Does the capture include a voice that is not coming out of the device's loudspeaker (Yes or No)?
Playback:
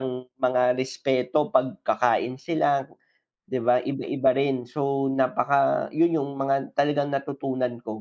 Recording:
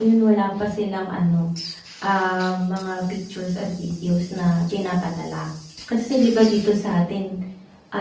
Yes